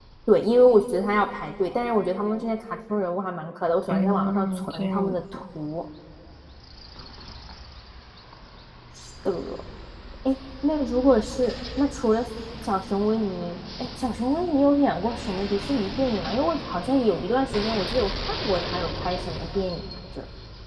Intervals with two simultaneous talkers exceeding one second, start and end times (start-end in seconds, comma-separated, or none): 3.9-5.4